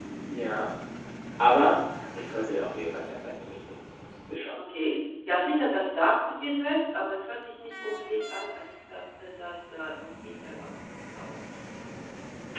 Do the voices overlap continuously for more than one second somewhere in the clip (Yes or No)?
No